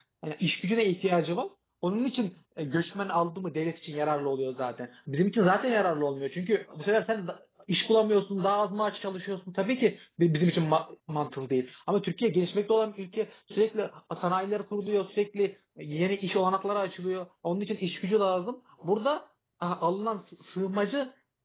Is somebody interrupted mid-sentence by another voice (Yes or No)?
No